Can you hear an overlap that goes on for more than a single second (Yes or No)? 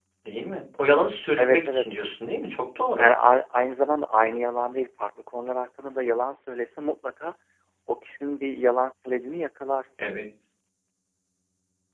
No